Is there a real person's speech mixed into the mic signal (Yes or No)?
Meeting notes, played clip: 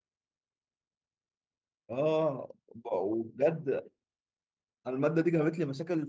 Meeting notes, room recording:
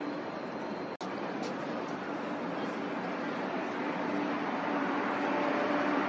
No